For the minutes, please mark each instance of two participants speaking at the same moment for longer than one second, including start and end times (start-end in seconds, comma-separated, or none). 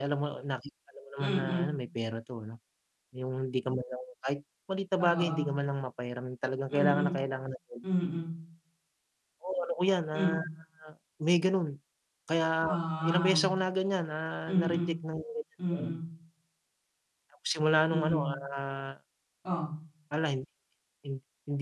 none